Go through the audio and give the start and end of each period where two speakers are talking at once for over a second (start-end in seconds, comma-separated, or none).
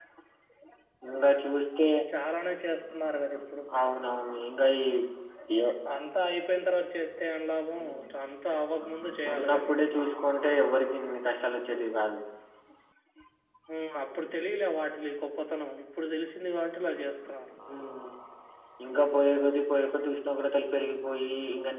none